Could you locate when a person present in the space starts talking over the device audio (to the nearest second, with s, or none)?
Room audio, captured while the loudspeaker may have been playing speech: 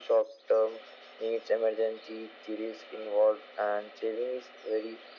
none